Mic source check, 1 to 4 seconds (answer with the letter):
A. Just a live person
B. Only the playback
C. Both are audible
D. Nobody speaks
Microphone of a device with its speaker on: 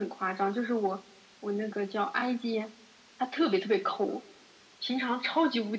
B